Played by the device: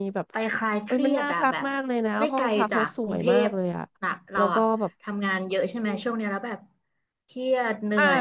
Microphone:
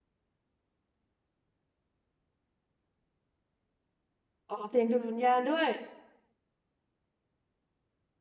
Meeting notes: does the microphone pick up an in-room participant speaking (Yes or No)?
Yes